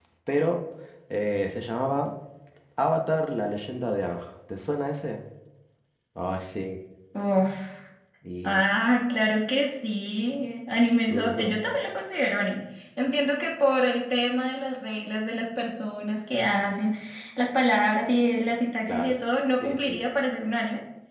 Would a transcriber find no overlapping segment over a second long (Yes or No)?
Yes